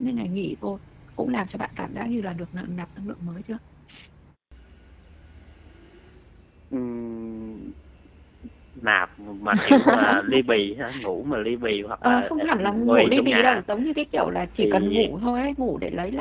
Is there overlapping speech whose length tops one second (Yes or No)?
Yes